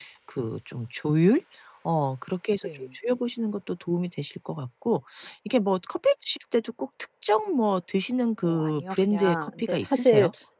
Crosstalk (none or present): present